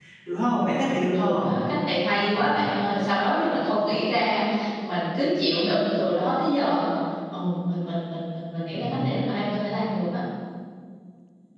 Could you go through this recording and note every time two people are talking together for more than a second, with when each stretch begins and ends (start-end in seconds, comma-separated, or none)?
none